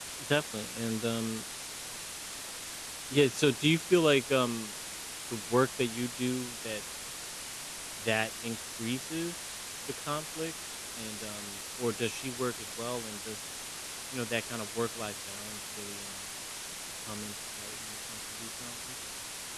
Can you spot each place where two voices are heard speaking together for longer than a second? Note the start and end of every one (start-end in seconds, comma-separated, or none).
none